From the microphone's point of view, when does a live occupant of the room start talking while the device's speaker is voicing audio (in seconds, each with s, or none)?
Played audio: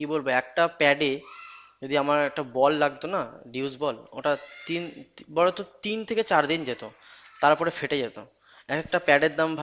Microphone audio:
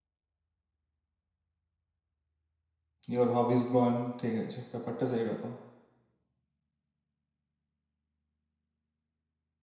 3.1 s